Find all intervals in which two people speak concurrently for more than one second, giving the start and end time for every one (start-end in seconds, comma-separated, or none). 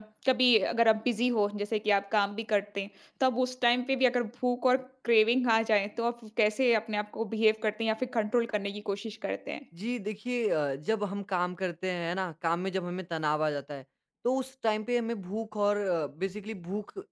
none